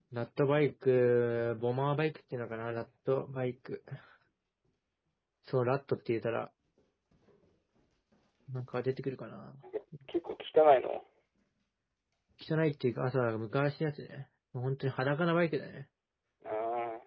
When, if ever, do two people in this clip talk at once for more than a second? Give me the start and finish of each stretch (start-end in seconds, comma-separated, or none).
none